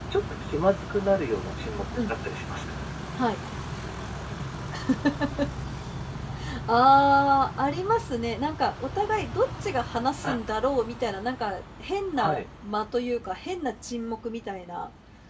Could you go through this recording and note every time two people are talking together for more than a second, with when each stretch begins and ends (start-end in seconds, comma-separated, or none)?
none